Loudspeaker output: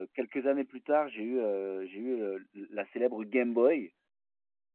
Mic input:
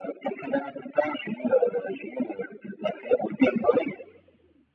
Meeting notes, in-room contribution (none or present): none